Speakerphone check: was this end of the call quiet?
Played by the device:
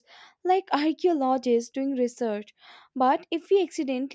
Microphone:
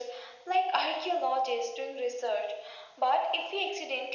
Yes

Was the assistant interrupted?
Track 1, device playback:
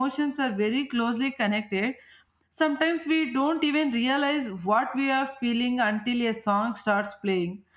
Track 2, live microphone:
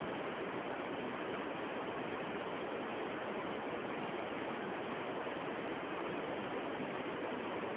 No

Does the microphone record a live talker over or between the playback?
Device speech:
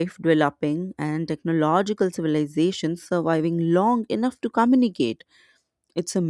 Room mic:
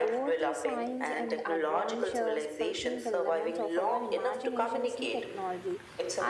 Yes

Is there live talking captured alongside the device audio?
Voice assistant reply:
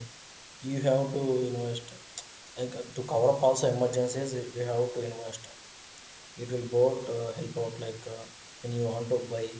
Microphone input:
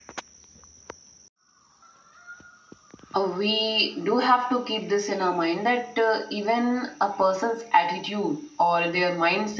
Yes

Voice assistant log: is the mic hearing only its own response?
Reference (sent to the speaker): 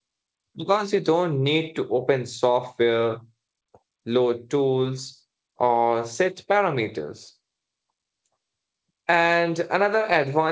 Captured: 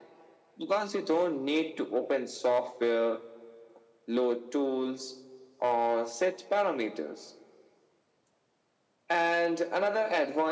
Yes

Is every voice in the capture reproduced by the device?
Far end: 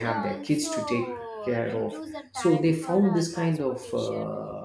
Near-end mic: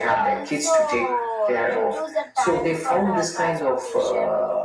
Yes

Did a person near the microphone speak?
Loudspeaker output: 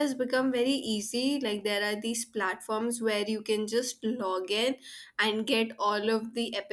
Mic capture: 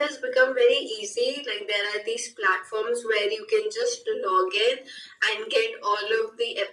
No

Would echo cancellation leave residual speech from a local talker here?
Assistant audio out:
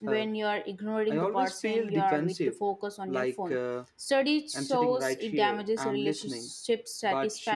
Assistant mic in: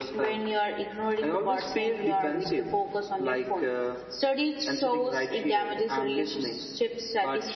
No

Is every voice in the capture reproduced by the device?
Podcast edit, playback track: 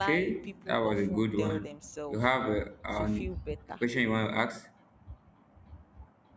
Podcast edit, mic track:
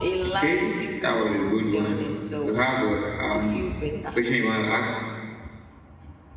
Yes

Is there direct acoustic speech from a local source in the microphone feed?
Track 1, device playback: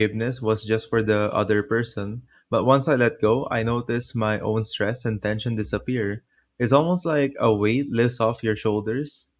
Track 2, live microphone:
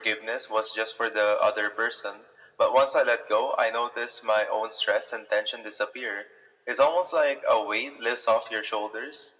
No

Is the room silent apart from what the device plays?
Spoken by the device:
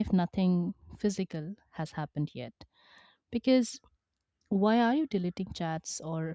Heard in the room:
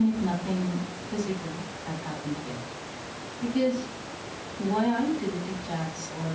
Yes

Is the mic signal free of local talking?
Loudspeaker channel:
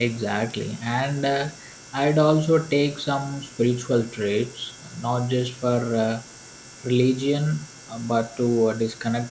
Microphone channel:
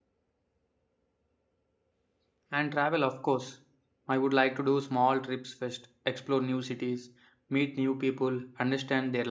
No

